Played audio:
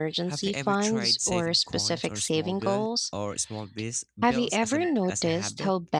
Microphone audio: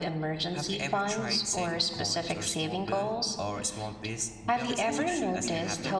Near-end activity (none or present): present